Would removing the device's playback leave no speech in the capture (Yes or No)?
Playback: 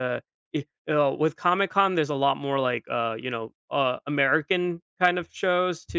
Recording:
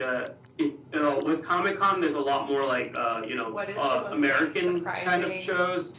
No